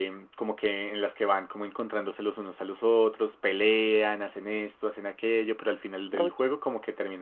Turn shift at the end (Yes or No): No